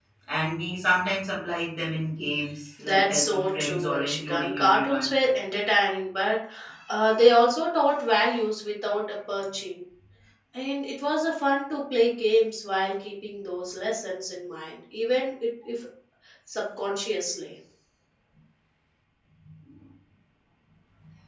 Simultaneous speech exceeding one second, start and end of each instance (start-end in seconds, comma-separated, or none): 2.8-5.1